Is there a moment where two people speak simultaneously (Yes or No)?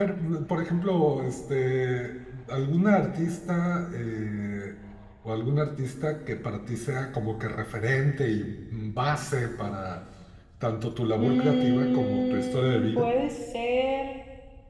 Yes